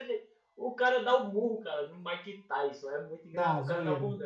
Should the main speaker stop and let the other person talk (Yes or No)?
No